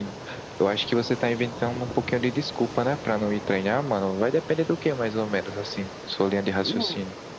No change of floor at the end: No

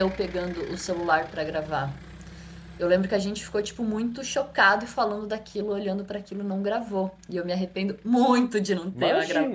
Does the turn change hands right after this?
Yes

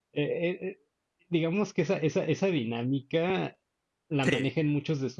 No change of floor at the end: Yes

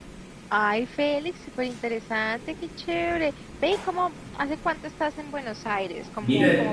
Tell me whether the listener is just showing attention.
No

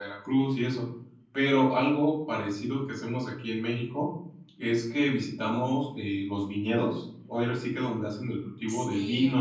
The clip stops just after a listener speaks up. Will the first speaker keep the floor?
Yes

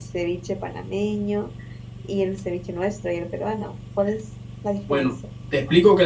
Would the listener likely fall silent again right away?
No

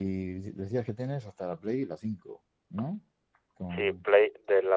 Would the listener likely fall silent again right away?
No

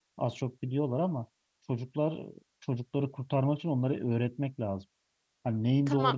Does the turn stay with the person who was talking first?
Yes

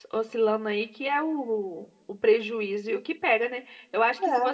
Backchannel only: Yes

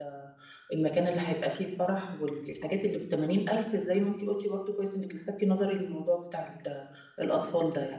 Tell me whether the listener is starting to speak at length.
Yes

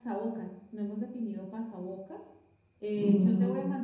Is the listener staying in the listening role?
Yes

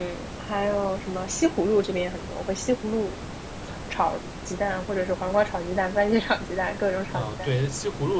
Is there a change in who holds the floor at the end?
Yes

